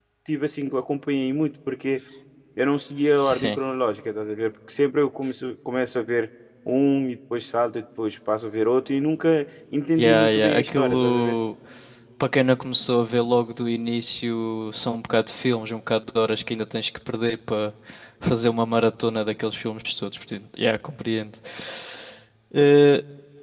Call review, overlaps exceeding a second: present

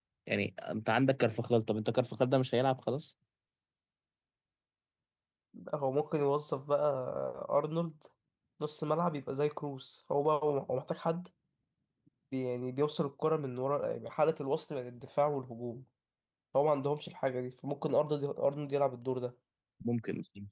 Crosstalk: none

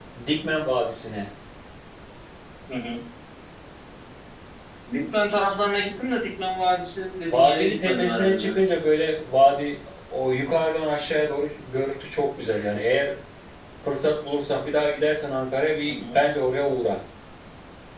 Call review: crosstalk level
present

